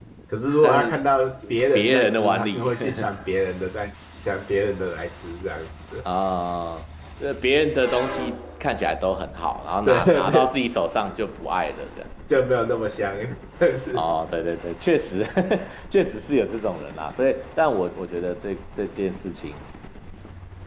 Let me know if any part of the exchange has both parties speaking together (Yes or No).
Yes